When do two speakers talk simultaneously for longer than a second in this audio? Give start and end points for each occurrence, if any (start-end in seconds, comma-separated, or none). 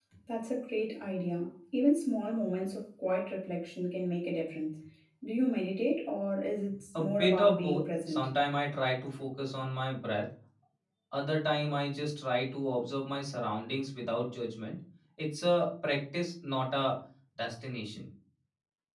7.0-8.3